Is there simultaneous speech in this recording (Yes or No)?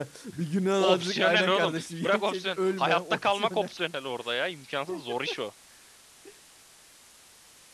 Yes